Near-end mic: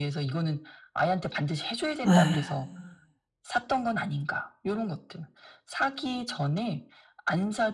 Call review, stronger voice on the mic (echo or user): user